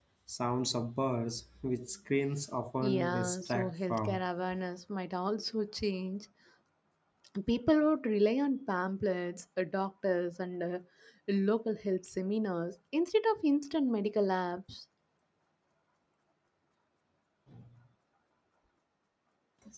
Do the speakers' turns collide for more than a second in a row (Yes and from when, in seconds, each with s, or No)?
Yes, from 2.8 s